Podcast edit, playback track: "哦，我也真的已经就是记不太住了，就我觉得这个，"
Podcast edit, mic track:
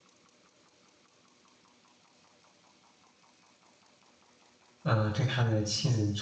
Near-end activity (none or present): present